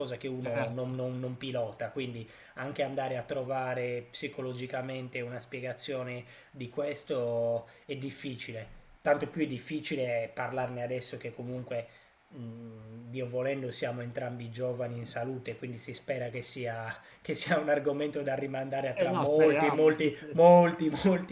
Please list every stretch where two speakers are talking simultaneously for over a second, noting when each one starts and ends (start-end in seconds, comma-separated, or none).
19.0-20.3